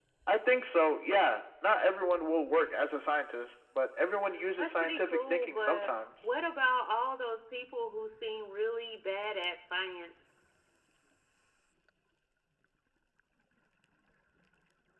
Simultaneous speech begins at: 5 s

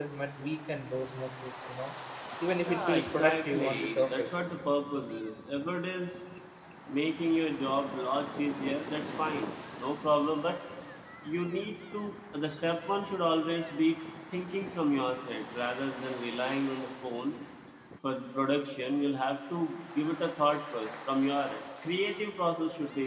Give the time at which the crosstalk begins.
3 s

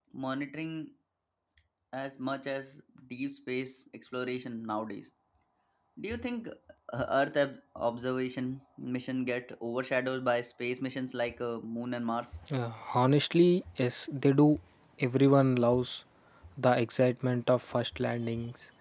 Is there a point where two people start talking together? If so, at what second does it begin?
none

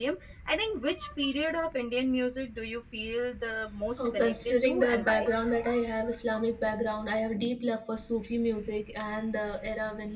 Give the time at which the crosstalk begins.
4 s

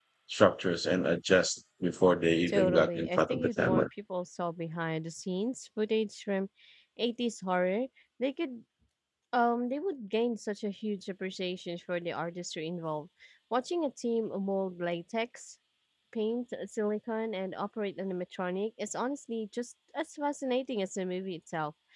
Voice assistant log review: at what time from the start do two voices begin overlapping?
2 s

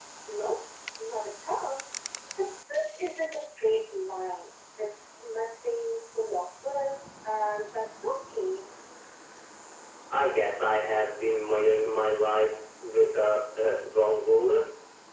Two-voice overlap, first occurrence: none

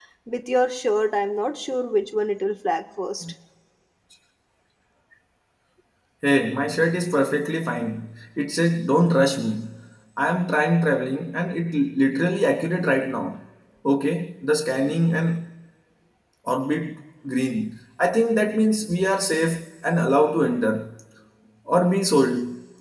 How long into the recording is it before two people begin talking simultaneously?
none

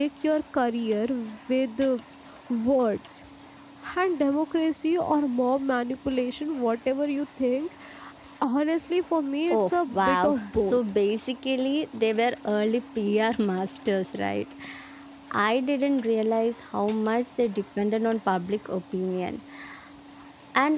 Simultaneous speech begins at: 10 s

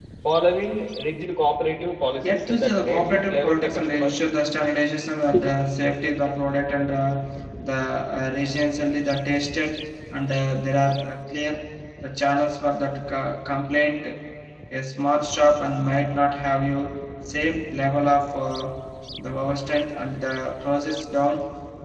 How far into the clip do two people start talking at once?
2 s

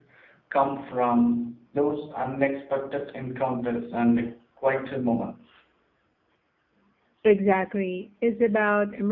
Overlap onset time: none

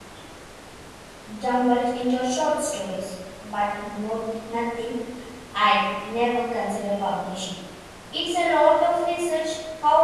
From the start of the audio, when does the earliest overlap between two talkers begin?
none

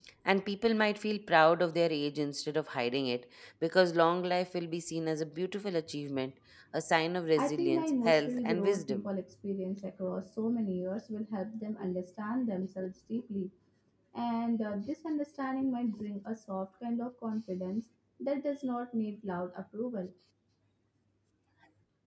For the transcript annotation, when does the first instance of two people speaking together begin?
7 s

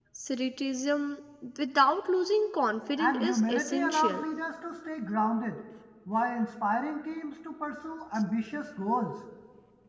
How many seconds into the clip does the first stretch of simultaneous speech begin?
3 s

